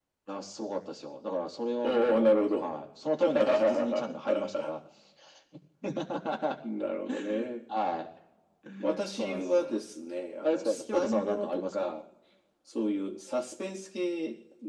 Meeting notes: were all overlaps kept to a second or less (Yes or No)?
No